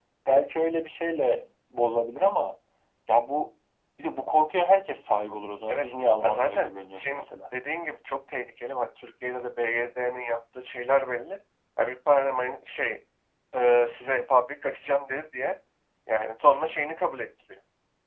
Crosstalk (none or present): present